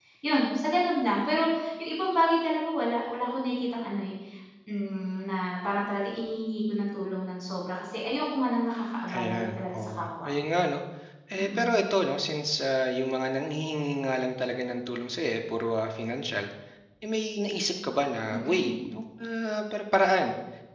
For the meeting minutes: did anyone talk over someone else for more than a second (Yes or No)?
Yes